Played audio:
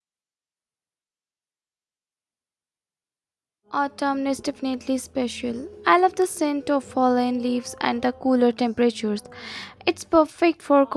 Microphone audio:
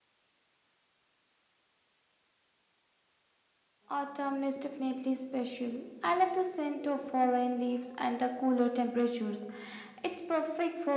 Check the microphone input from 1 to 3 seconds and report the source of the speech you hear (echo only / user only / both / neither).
neither